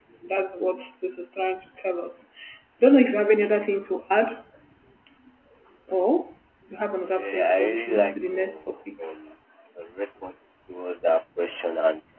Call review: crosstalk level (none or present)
present